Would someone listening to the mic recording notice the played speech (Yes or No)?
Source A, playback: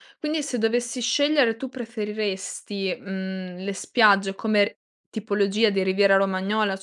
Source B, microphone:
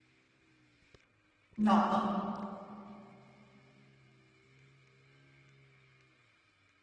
No